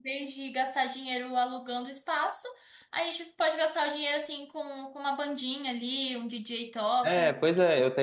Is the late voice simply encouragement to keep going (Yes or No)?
No